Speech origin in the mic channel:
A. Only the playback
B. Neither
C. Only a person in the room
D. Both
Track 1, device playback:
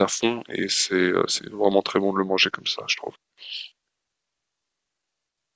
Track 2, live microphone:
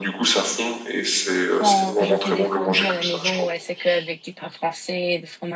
D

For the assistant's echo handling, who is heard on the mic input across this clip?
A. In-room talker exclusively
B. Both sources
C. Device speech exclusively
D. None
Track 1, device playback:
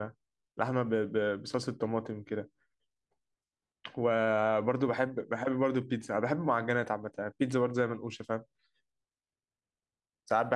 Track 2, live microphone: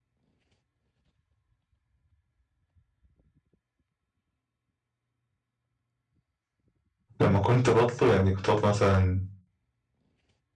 A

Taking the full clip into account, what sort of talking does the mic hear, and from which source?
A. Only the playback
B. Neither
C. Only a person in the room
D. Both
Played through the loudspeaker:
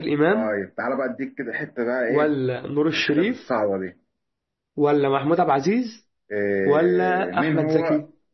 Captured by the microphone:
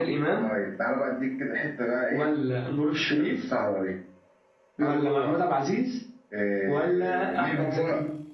D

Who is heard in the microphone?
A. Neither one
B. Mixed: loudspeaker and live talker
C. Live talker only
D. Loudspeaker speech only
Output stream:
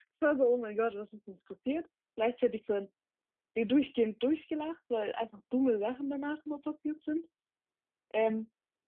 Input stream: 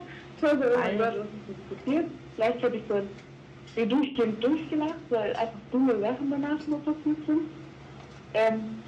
B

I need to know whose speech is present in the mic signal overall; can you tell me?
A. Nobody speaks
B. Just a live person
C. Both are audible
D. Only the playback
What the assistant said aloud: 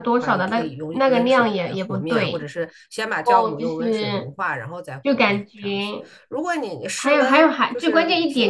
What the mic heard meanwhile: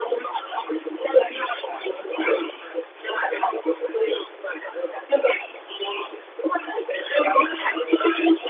D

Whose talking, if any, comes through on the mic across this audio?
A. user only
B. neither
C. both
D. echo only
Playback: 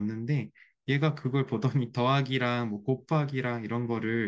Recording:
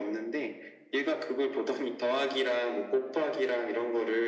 D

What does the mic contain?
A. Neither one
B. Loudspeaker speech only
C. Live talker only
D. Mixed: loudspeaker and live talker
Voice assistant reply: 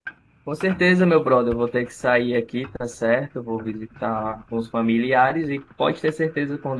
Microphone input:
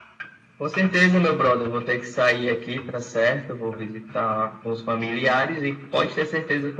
B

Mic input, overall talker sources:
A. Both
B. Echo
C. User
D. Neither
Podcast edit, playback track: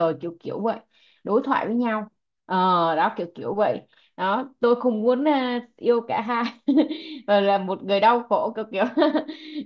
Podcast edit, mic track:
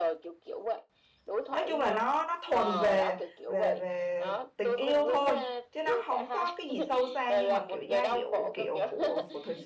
A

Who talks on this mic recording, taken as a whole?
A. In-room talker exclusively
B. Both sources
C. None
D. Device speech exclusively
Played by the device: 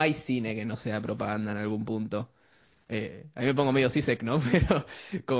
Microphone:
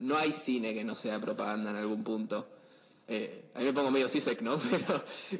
D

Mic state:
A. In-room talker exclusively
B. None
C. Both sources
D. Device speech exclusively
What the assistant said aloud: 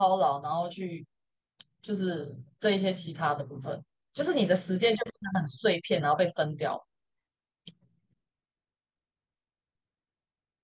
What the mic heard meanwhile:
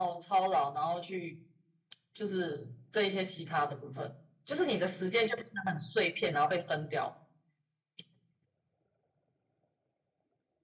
D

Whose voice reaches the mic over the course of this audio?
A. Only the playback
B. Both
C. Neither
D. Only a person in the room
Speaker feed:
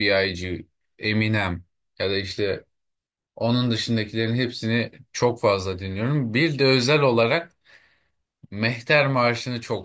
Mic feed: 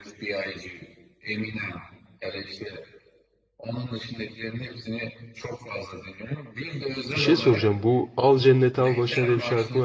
B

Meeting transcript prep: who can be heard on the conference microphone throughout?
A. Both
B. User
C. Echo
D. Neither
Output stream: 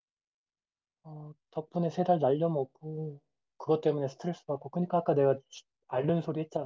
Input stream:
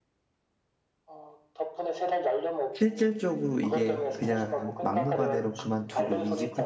A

